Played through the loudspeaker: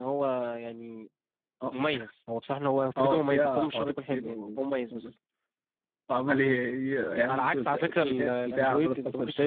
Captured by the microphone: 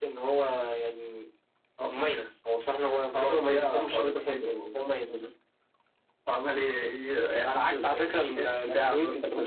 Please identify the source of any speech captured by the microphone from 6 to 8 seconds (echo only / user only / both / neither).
echo only